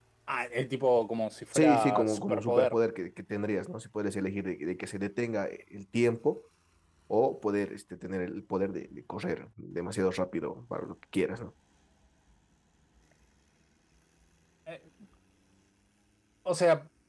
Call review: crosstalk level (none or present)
present